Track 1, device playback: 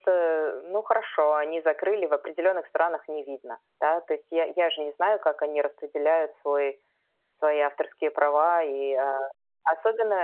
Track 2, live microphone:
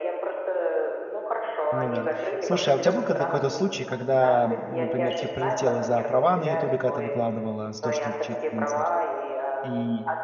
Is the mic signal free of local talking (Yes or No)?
No